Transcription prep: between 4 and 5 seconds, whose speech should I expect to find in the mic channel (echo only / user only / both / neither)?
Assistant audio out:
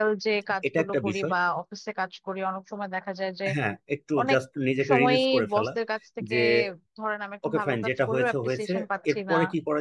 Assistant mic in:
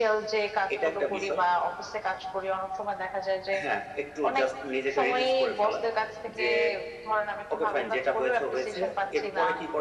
echo only